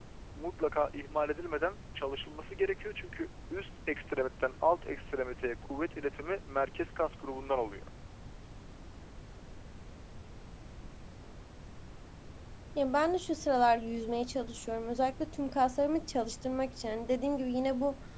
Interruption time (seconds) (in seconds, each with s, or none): none